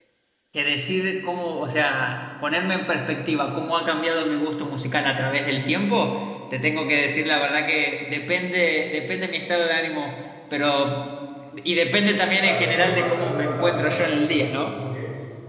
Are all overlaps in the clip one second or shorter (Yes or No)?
No